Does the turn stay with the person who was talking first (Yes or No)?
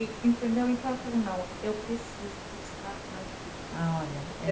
No